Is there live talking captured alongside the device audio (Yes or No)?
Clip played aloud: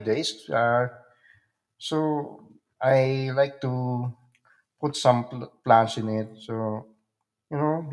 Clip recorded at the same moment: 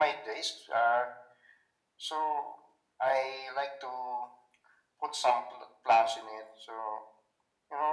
No